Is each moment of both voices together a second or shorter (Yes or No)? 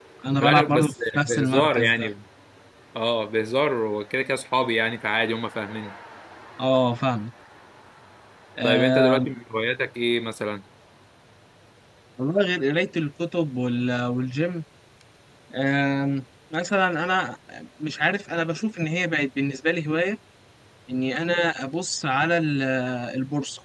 No